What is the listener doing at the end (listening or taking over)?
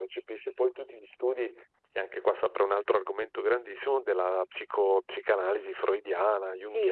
taking over